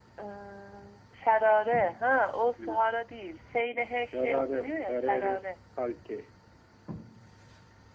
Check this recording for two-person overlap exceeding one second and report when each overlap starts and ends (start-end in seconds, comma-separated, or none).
4.1-5.4